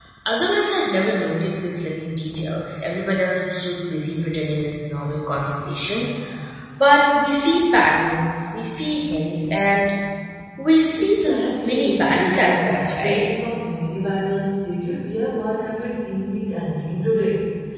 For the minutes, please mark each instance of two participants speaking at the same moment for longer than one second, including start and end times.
11.1-13.3

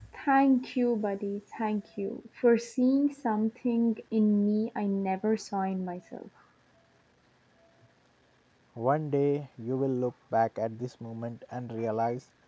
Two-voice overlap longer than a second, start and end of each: none

